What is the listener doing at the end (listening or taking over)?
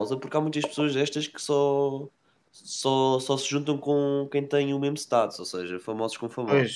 taking over